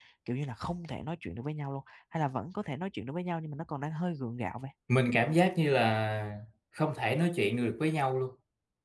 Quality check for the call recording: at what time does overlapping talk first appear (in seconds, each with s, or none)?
none